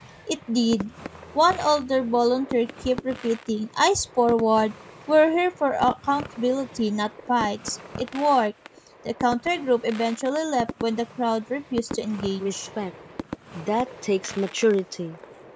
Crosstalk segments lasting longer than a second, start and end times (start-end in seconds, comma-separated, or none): none